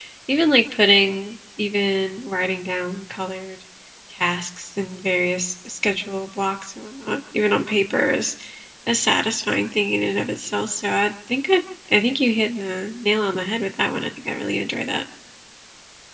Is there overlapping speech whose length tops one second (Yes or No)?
No